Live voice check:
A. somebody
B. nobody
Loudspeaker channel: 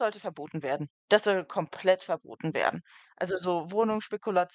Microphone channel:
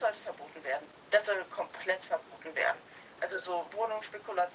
B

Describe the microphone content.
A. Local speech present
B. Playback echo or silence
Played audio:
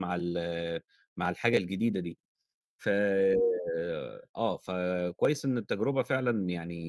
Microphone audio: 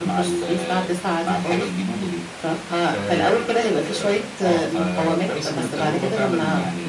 A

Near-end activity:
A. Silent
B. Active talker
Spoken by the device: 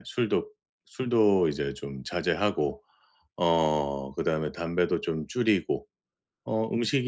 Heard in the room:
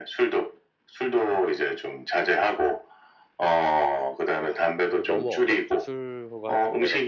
B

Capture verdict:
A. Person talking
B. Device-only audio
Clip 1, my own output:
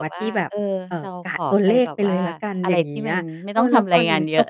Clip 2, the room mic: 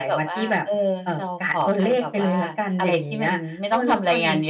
B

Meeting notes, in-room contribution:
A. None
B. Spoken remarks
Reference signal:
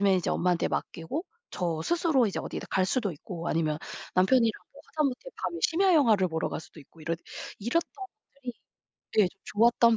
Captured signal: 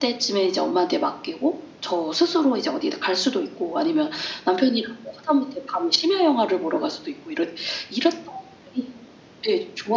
A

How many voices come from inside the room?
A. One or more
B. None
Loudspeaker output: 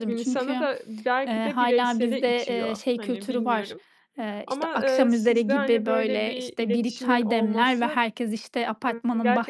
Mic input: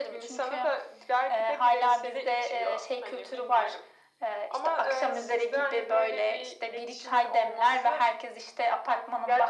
B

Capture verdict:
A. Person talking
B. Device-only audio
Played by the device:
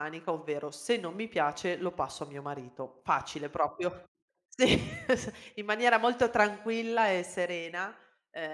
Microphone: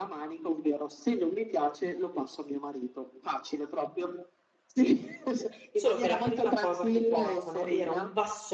A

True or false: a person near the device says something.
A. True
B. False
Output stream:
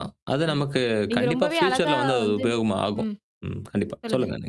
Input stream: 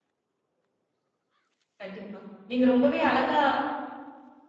A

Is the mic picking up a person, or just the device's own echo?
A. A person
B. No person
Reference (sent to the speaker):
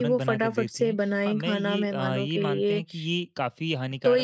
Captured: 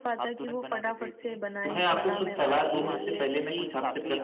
A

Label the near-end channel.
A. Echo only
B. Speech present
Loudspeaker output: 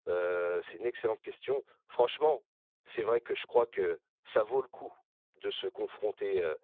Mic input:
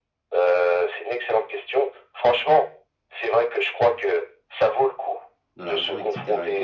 B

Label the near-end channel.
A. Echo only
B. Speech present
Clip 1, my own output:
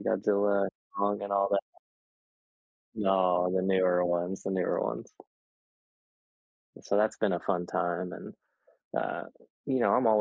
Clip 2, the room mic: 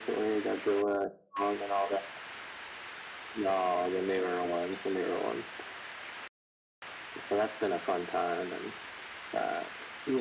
A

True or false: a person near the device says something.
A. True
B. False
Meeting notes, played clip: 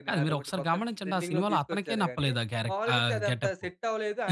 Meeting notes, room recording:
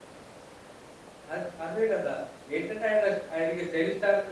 A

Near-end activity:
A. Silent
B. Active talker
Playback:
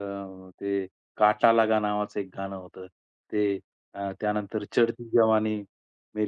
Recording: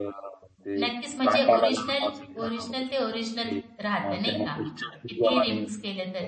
B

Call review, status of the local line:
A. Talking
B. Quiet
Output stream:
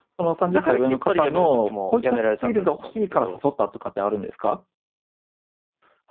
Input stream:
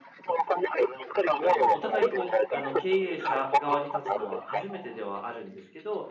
A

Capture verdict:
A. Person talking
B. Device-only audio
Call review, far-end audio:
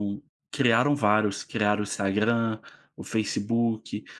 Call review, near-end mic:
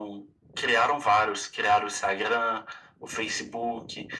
B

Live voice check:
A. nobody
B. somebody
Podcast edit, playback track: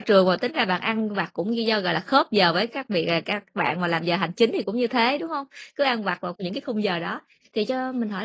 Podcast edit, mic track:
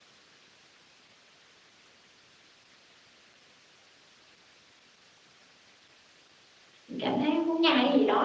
B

